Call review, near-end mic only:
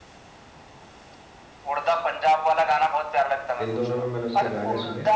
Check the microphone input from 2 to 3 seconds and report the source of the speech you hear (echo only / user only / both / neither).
echo only